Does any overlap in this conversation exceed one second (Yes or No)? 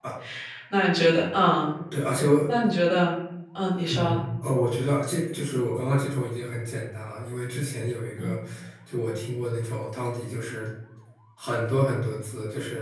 No